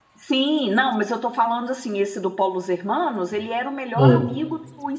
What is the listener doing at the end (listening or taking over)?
listening